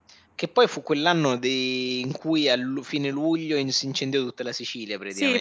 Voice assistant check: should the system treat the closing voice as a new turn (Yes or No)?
Yes